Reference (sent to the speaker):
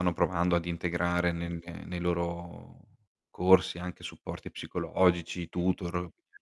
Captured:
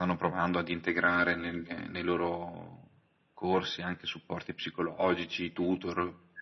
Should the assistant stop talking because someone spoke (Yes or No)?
No